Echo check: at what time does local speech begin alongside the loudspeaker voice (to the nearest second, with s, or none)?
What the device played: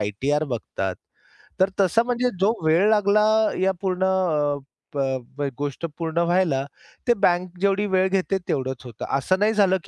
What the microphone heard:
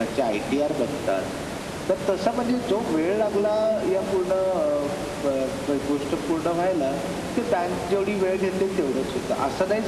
none